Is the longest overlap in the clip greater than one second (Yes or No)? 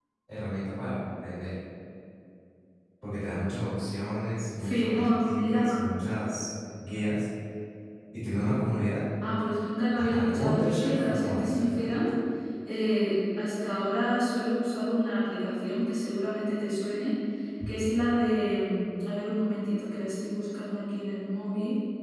Yes